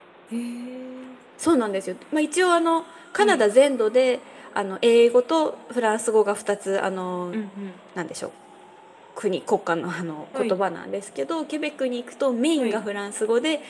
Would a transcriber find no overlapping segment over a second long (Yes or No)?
Yes